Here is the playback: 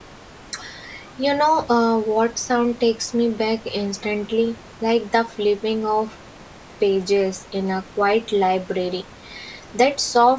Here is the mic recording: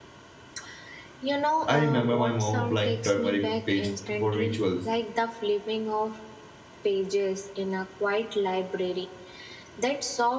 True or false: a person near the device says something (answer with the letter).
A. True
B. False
A